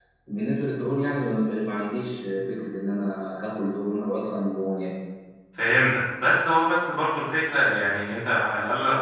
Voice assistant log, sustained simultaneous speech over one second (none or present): none